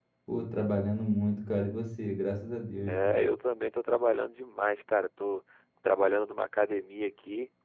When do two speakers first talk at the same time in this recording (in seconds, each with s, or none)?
none